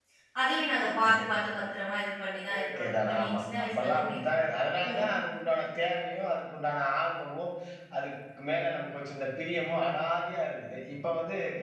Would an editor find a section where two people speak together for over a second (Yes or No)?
Yes